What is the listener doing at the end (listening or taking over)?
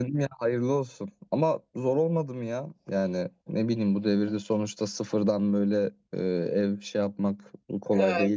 taking over